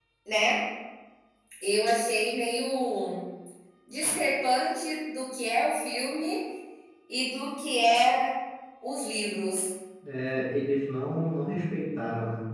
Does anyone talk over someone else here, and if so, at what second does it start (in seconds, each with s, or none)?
none